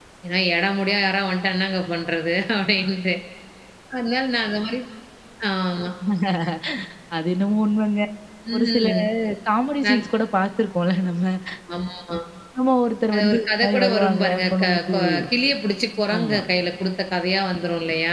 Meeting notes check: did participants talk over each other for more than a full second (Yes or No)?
Yes